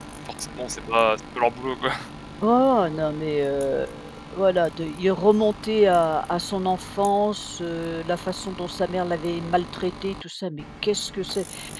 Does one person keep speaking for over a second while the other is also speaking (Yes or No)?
No